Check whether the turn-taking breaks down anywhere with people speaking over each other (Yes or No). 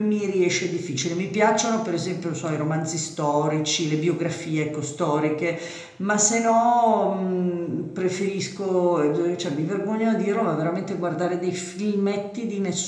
No